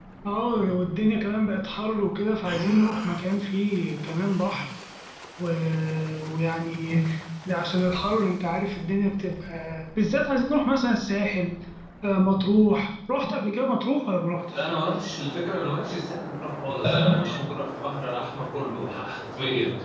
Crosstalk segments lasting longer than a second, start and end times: none

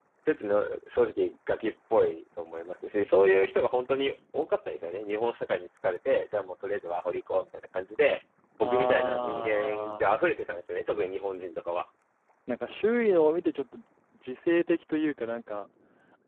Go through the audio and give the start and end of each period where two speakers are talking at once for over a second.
8.6-10.2

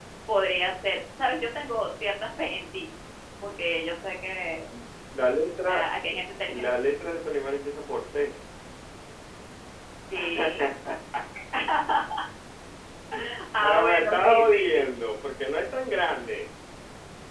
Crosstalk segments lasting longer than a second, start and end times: 13.6-14.9

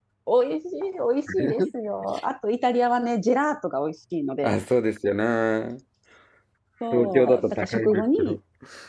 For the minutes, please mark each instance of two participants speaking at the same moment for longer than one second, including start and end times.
6.9-8.4

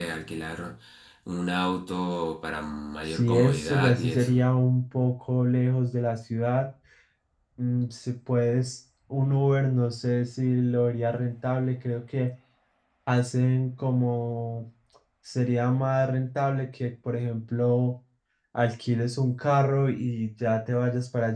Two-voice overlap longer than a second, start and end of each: 3.1-4.4

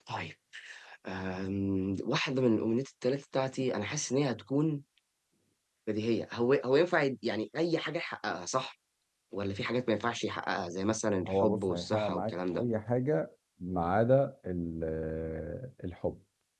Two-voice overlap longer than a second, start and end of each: 11.3-12.6

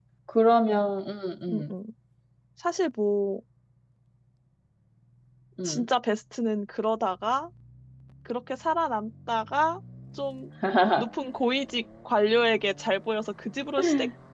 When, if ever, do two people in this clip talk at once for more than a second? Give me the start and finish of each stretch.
none

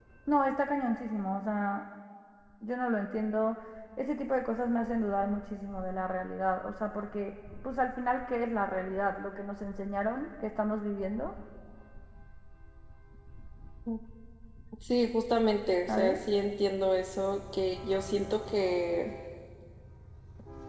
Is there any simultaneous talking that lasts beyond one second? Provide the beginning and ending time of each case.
none

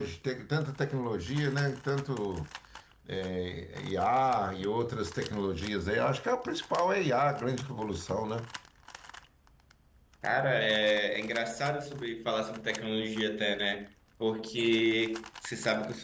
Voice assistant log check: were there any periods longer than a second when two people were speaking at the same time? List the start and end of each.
none

